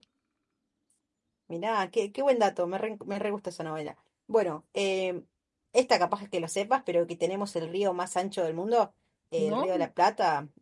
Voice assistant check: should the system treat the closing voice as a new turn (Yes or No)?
No